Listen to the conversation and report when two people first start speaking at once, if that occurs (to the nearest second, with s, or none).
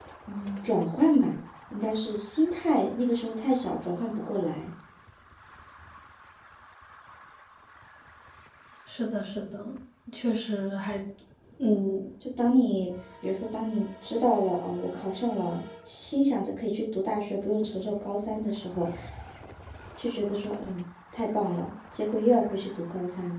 none